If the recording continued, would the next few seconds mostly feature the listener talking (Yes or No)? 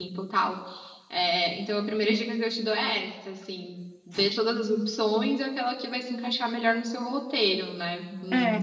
Yes